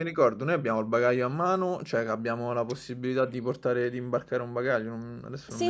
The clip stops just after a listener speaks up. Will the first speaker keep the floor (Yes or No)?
No